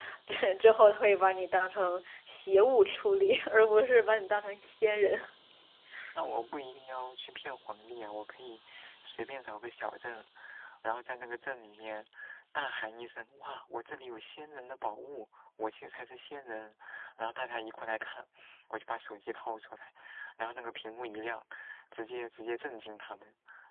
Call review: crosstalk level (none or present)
none